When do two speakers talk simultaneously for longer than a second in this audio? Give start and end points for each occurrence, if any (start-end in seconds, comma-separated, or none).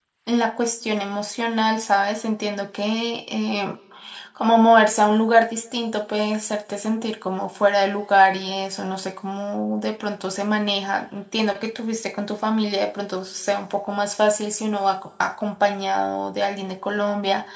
none